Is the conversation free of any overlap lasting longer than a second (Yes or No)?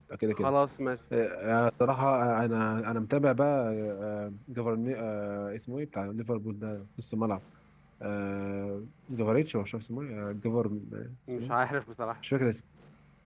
Yes